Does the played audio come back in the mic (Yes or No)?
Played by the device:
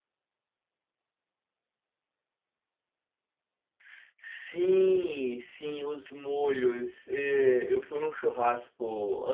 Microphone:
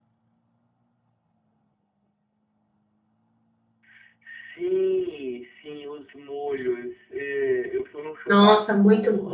Yes